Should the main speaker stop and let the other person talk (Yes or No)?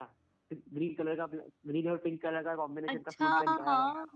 Yes